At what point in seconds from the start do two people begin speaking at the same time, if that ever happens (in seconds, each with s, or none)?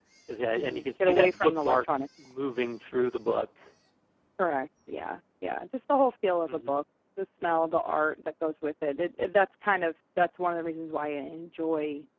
0.6 s